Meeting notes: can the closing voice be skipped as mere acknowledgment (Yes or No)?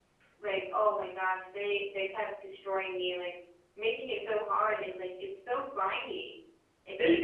No